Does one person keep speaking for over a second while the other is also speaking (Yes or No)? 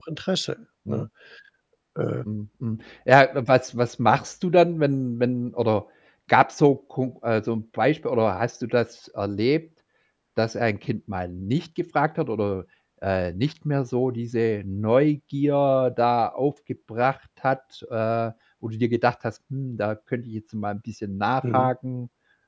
No